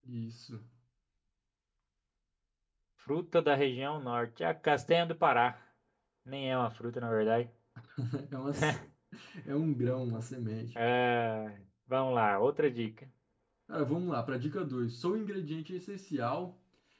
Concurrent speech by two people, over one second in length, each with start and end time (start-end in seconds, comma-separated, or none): none